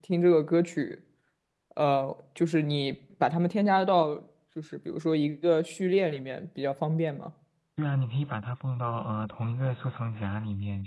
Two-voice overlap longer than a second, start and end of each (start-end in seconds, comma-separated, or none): none